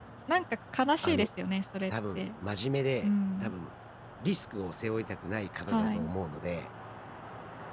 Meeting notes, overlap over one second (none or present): none